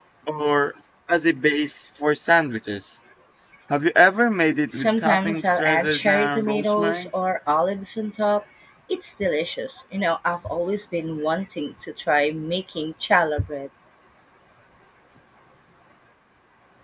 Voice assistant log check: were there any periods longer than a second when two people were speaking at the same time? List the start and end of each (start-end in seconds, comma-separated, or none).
4.7-7.1